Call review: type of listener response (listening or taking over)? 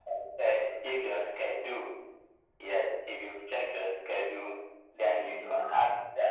listening